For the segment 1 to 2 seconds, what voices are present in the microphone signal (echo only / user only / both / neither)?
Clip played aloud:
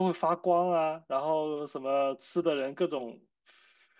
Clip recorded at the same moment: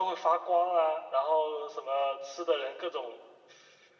echo only